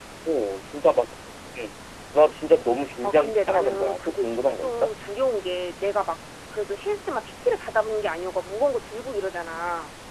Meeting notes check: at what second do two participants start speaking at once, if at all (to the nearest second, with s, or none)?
3 s